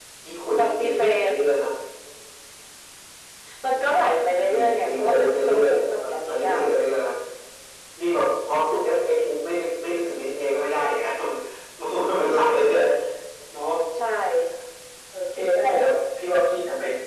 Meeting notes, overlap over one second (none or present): present